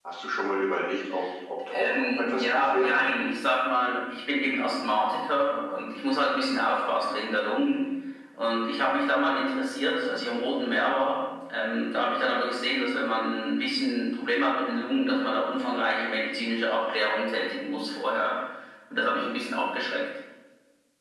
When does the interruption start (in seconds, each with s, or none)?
1.7 s